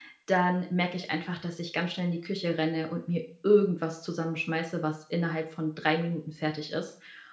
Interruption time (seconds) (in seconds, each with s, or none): none